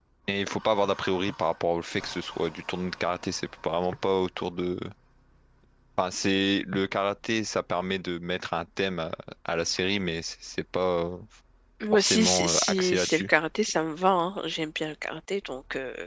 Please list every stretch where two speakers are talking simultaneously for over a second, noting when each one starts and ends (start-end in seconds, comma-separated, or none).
11.9-13.3